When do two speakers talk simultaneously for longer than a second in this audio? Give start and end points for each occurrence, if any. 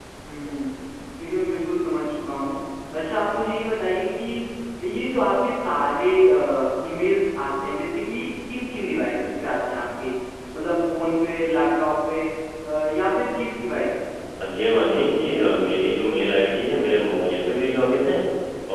none

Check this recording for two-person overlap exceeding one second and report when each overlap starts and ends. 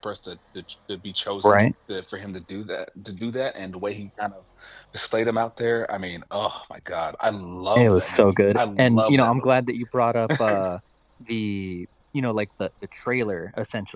7.8-9.5

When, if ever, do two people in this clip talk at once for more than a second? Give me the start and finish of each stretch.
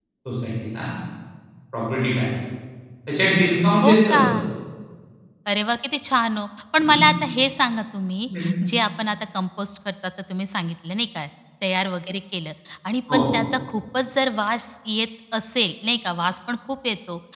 none

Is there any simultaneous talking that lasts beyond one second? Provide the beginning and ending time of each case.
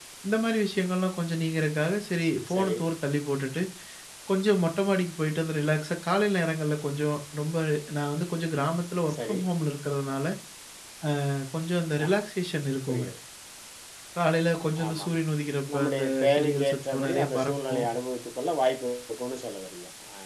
15.7-17.9

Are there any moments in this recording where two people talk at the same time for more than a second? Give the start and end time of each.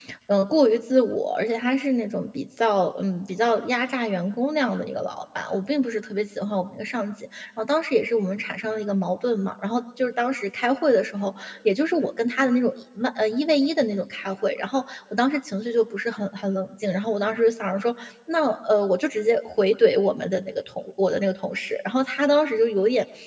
none

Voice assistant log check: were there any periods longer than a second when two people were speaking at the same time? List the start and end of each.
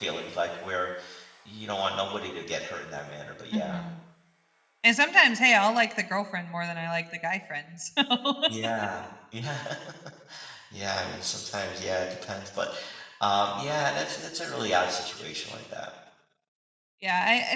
none

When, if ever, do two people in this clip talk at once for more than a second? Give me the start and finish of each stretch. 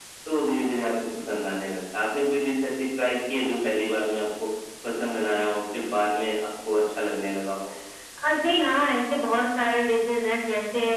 none

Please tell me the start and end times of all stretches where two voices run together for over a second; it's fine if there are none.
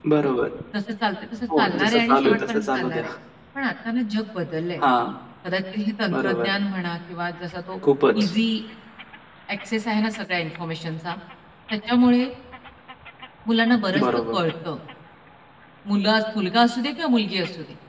1.6-3.1

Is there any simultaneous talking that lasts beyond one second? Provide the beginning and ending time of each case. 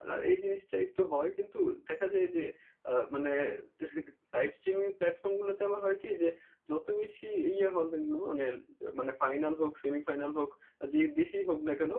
none

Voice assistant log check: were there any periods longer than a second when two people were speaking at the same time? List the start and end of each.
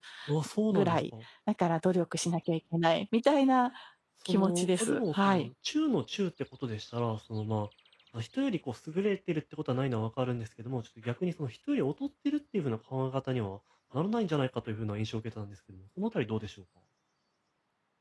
4.3-5.5

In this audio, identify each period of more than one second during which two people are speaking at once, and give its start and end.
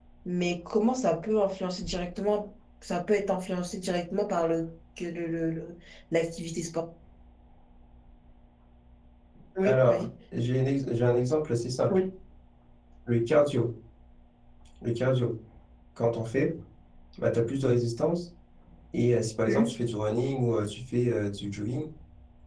none

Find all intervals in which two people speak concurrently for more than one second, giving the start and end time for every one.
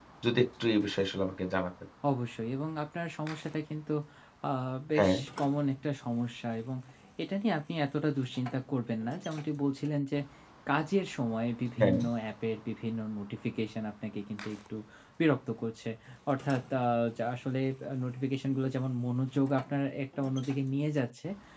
none

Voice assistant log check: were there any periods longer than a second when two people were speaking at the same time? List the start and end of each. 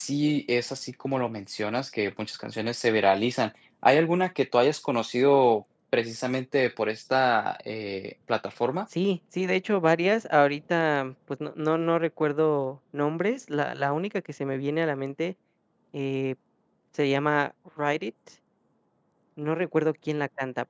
none

